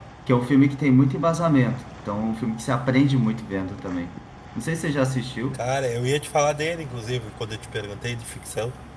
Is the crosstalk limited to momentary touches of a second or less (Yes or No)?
Yes